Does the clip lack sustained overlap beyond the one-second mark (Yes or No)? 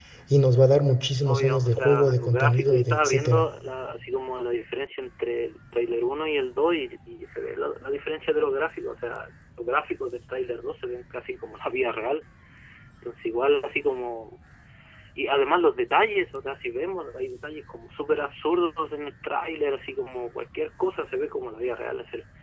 No